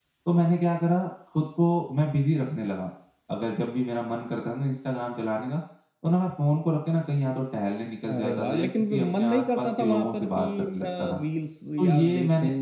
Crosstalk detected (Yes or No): Yes